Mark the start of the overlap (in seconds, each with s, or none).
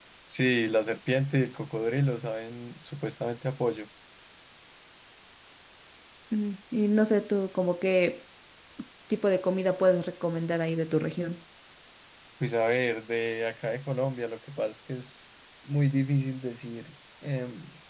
none